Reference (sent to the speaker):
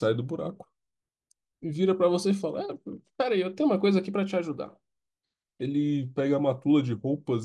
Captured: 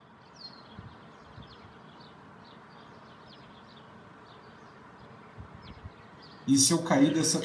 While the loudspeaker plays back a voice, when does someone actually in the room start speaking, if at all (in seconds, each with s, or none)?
6.4 s